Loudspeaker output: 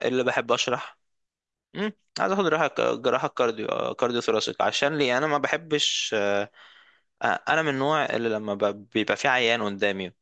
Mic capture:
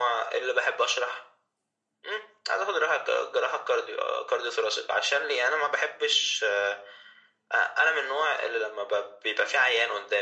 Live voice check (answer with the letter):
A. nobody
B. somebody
A